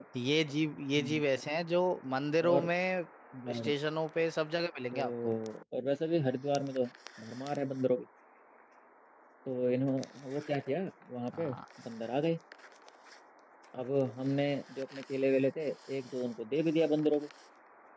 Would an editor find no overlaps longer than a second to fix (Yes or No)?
Yes